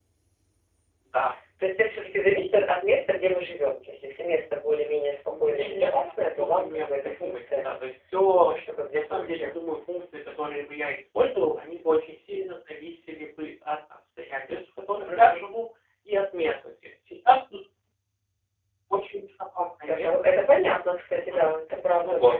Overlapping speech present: Yes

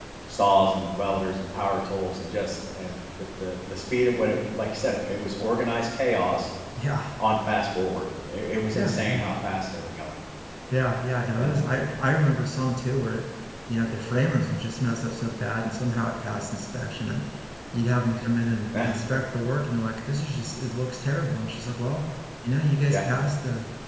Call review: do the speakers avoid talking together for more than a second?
Yes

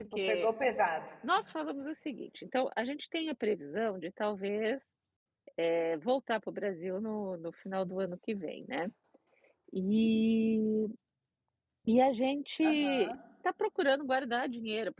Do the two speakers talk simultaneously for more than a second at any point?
No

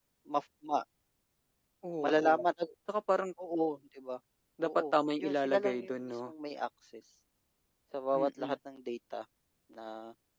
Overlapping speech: Yes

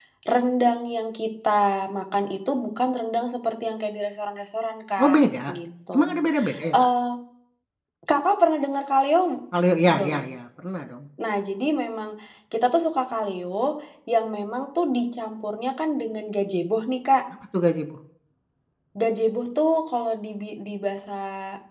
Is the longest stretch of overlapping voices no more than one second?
Yes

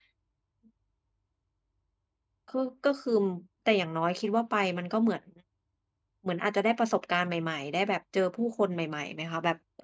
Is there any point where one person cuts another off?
No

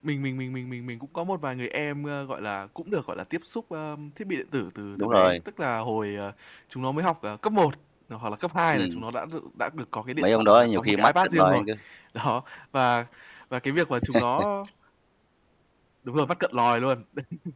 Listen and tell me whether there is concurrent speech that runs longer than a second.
Yes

